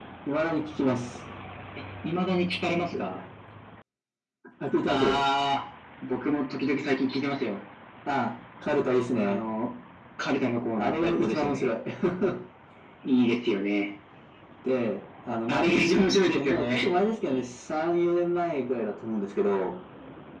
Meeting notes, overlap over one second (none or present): present